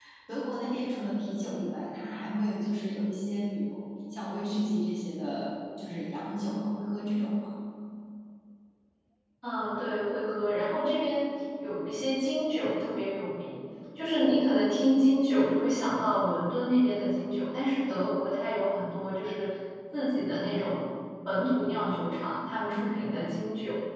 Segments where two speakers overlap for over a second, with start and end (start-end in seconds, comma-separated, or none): none